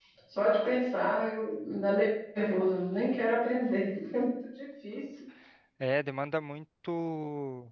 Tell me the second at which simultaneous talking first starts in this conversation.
none

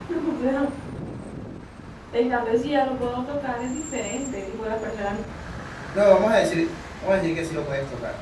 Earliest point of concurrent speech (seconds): none

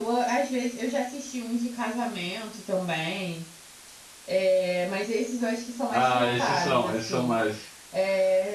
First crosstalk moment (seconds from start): 5.9 s

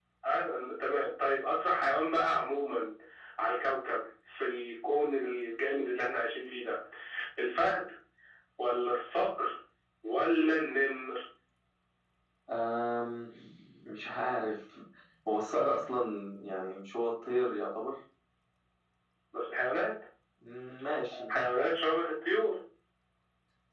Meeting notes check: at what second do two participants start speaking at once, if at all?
none

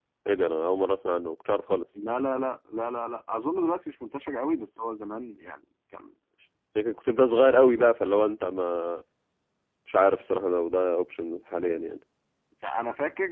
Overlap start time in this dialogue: none

